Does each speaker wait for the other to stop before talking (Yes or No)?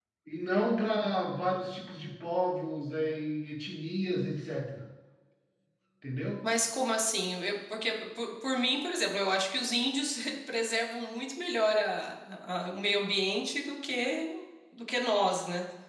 Yes